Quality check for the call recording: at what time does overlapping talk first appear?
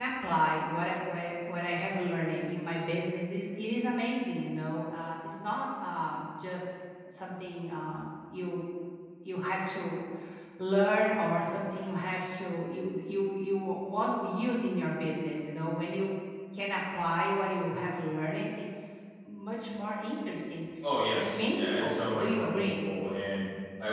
21.1 s

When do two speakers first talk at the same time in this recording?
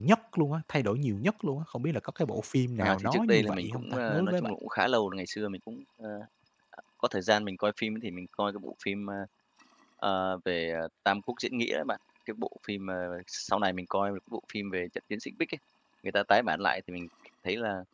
2.8 s

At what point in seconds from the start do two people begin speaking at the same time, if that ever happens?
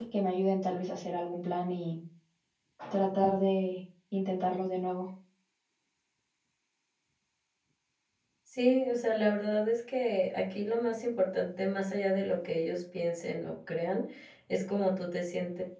none

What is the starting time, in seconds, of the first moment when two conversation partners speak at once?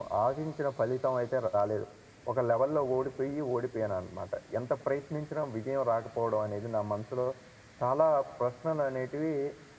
none

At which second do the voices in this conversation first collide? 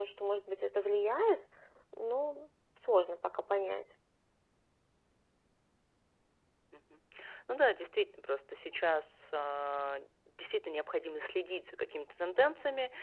none

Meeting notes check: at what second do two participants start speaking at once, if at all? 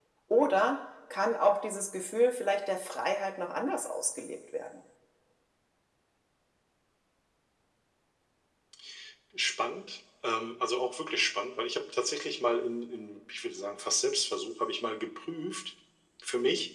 none

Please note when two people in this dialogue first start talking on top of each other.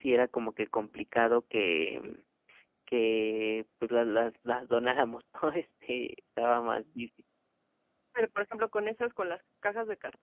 none

